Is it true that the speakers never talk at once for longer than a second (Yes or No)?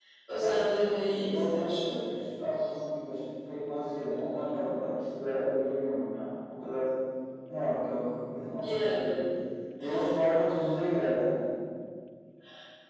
No